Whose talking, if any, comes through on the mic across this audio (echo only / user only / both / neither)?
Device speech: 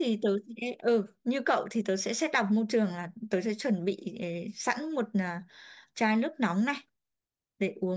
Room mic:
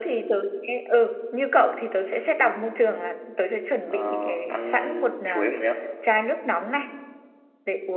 both